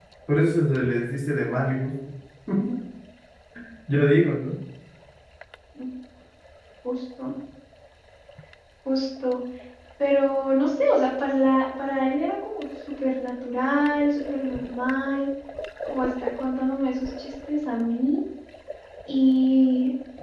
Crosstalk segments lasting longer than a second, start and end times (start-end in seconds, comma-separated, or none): none